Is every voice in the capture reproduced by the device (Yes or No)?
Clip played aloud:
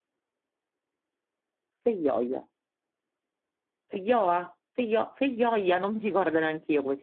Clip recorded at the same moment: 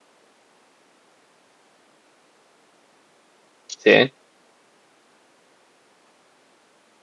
No